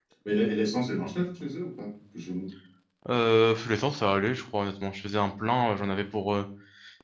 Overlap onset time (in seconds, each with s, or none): none